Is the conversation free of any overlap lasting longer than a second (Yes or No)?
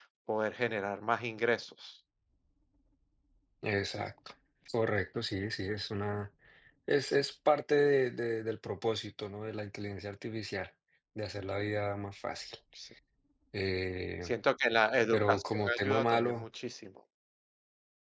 No